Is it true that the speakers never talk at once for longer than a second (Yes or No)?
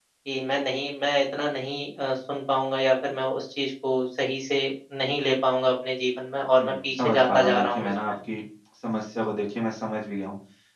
No